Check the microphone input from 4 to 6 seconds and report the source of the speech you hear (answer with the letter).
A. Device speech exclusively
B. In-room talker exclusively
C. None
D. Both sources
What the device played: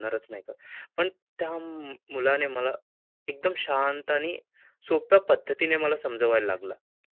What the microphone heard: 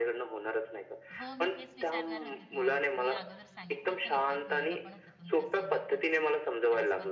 D